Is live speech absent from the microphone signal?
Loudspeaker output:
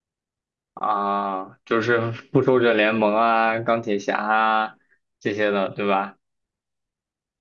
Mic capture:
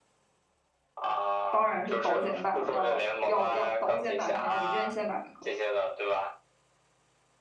No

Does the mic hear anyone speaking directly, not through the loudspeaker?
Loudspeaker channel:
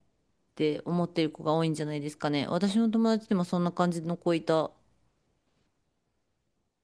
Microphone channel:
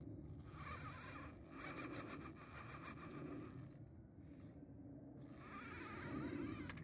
No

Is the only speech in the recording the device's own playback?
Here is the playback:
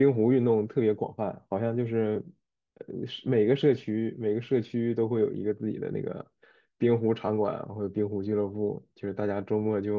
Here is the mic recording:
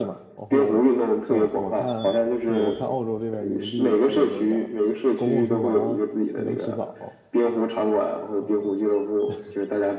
No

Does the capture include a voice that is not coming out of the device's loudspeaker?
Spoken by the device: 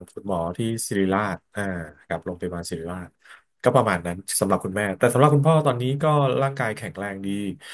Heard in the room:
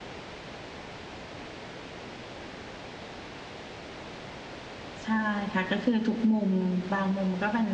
Yes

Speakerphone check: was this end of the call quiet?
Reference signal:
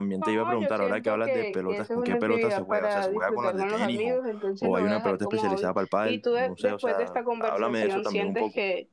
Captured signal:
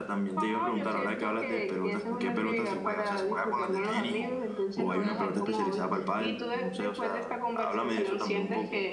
Yes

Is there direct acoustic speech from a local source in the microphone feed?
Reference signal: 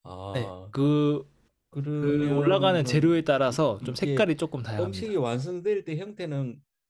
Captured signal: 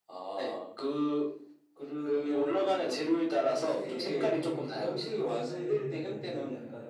Yes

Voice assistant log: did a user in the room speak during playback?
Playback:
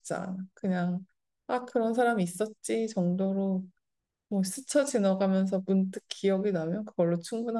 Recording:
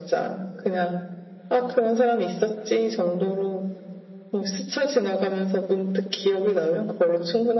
No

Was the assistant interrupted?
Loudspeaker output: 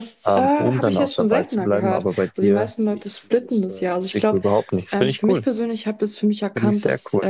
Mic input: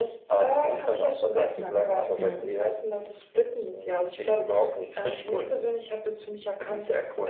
Yes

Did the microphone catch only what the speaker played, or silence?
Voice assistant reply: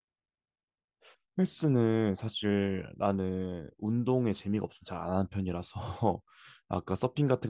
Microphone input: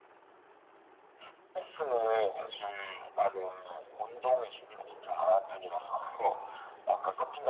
Yes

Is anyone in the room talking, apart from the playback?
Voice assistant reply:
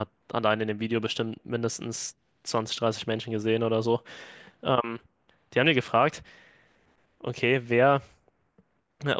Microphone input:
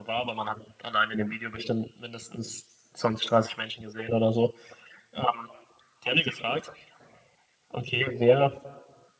No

